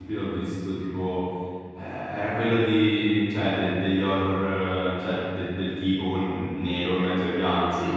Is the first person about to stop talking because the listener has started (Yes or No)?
Yes